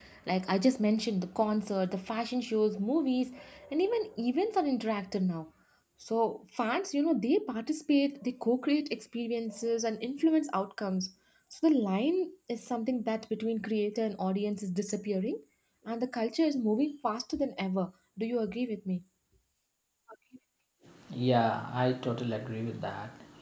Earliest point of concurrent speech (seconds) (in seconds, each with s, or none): none